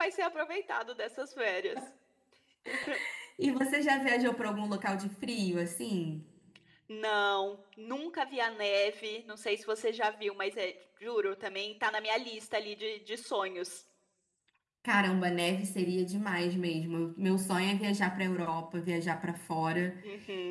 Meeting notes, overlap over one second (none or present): none